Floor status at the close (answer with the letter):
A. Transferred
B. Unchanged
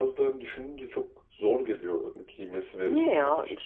A